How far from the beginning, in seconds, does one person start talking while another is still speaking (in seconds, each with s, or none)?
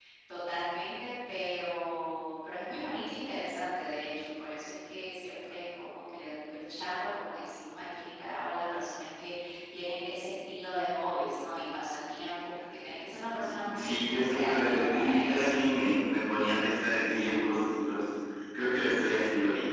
13.6 s